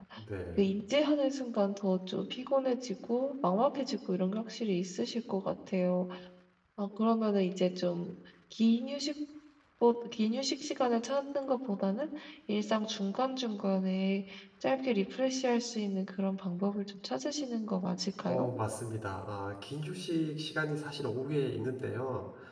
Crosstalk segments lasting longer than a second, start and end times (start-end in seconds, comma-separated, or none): none